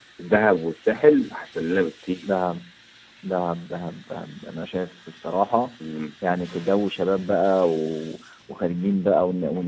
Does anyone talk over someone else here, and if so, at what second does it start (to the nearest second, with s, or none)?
none